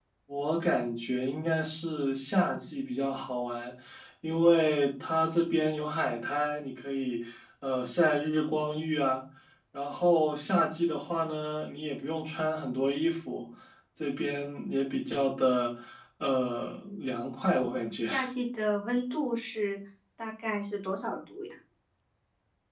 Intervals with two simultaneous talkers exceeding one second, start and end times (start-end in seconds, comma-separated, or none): none